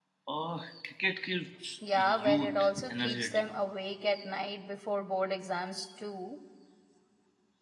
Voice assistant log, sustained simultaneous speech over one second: present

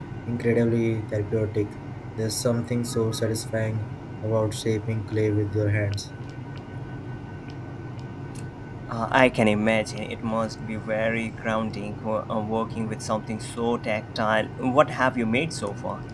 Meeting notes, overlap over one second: none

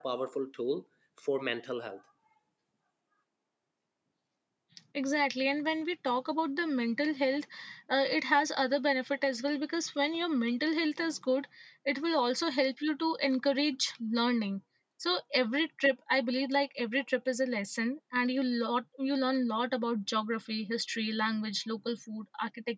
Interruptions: none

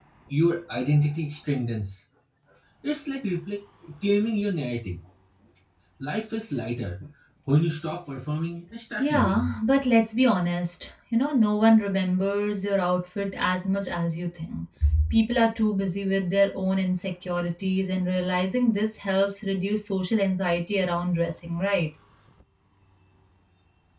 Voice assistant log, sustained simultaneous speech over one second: none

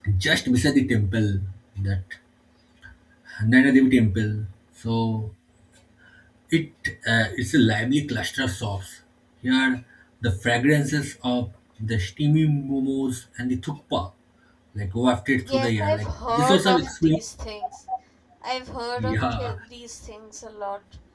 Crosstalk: present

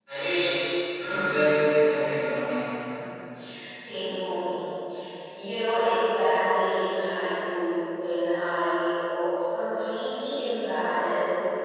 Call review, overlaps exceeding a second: none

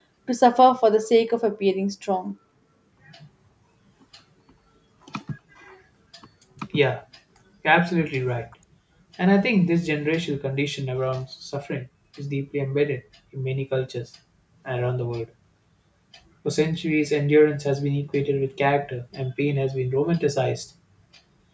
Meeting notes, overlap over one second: none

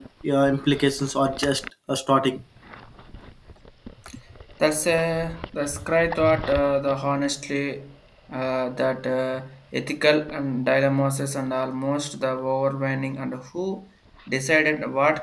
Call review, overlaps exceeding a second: none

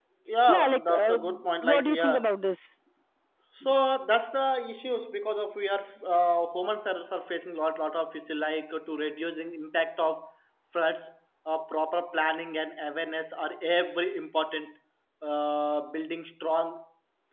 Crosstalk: present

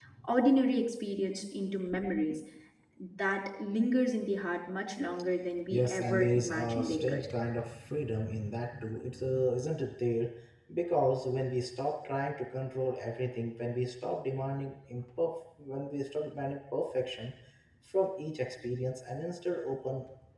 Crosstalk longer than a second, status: present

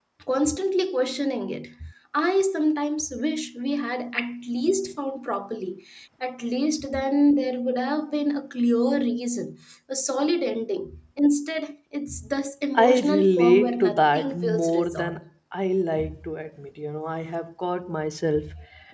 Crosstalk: present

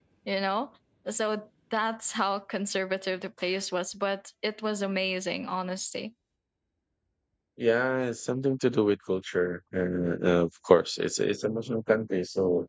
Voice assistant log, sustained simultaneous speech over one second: none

